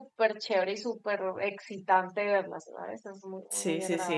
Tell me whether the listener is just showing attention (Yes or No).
No